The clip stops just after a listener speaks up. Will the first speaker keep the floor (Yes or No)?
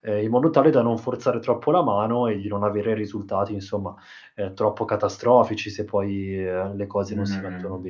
No